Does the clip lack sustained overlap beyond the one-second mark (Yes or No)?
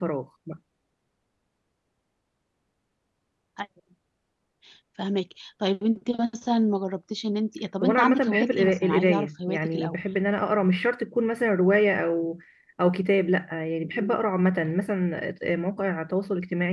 No